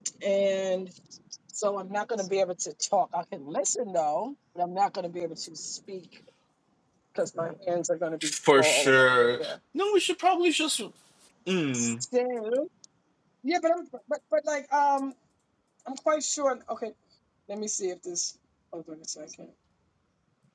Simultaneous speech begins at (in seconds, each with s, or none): 8.2 s